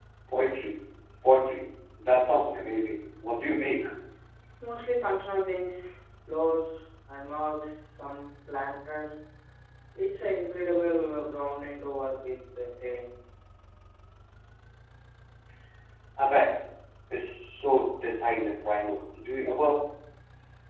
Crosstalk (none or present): none